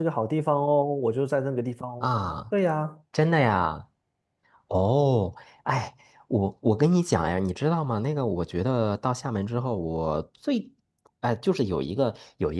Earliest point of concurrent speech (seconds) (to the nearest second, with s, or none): none